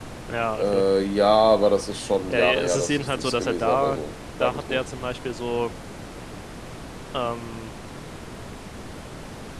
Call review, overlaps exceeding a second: present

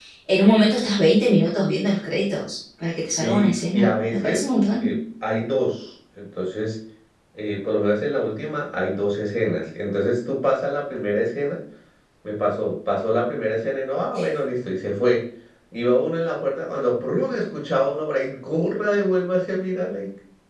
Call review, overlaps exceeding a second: present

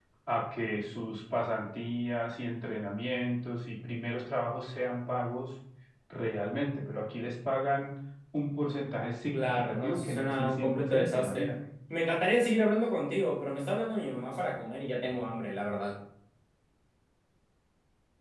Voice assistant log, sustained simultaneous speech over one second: present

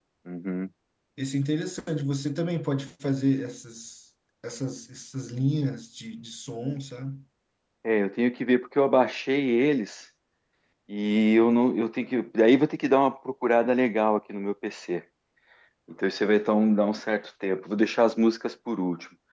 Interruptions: none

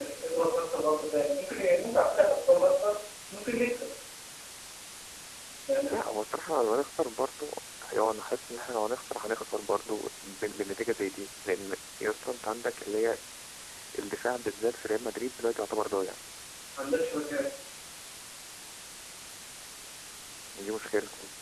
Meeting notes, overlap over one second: none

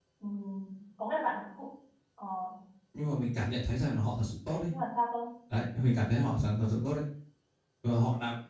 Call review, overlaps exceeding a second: none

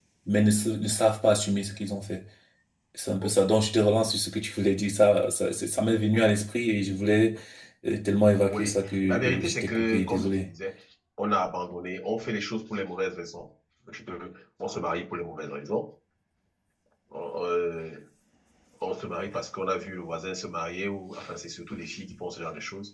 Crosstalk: present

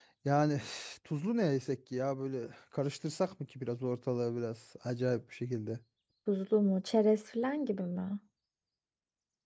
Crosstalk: none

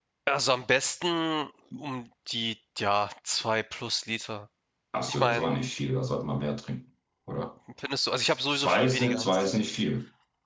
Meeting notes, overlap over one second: present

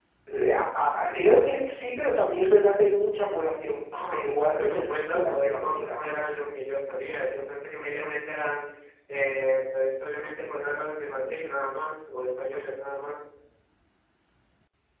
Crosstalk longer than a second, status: present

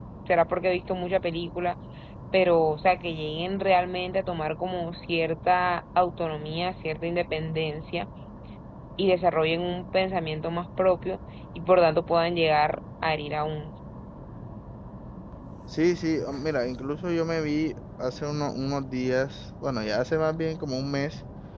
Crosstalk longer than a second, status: none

